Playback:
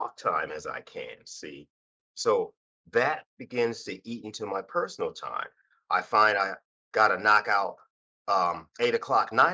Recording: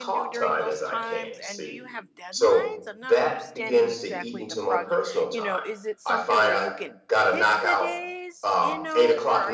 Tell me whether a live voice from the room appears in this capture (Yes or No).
Yes